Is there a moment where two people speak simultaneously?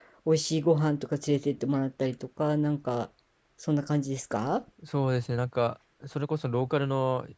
No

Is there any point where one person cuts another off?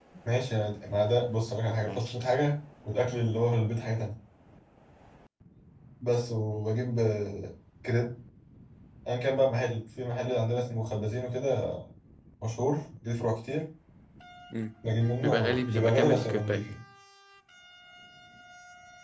Yes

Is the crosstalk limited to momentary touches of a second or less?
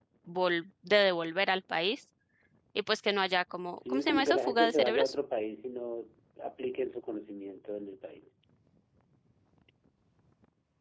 No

